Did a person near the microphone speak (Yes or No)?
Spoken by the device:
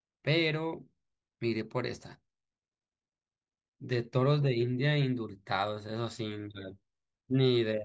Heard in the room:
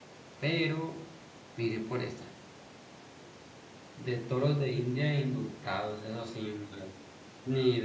No